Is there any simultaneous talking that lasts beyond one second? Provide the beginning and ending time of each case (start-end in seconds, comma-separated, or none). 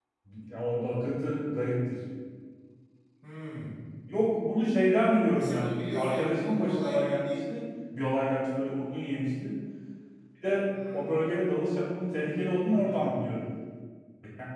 5.3-7.4